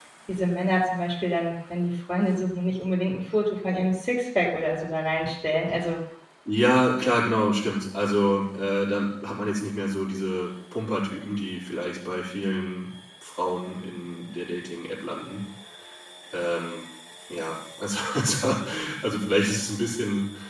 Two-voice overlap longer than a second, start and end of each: none

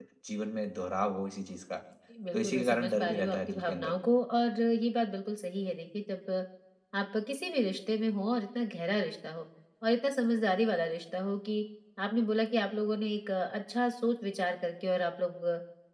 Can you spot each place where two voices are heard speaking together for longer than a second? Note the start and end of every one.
2.3-4.0

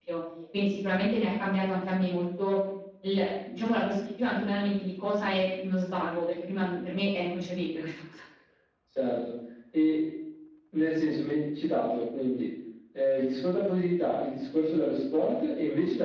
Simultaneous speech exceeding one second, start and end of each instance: none

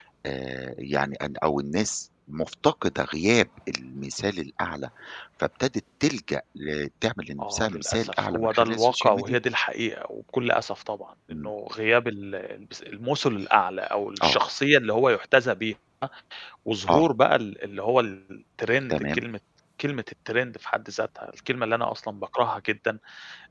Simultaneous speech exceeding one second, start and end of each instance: 7.4-9.4

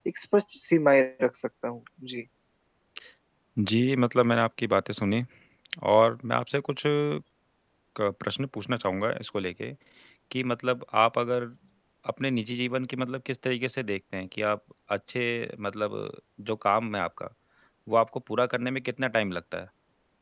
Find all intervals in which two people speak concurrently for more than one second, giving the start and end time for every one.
none

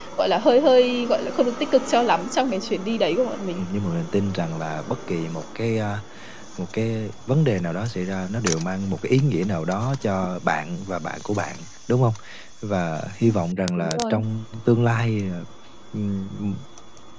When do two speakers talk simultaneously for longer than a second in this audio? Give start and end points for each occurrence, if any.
none

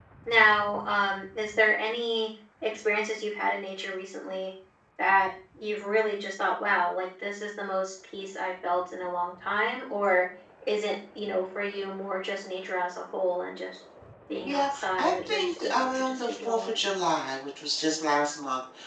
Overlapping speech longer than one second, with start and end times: 14.4-16.8

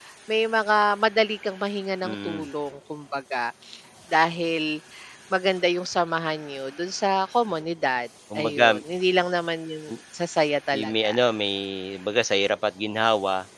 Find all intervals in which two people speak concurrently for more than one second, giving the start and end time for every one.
none

